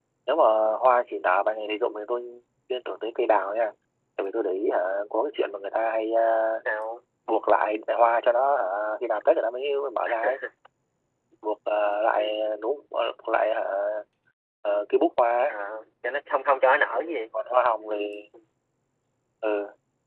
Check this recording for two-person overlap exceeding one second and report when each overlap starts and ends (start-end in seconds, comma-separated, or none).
none